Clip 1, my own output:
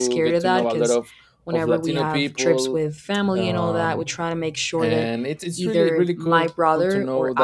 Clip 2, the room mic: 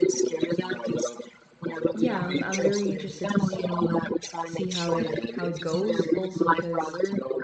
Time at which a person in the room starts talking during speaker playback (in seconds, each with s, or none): 1.9 s